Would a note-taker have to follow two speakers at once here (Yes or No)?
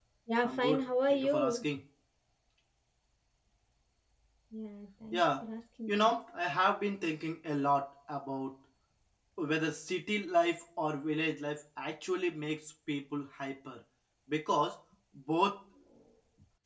Yes